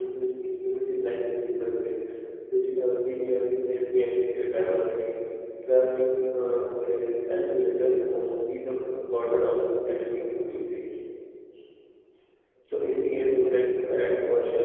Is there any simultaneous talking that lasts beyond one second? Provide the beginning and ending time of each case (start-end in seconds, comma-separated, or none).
none